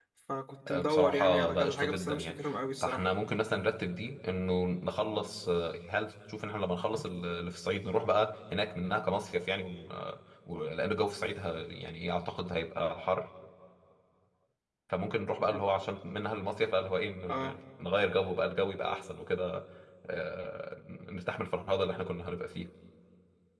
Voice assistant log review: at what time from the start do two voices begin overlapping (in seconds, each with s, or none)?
0.7 s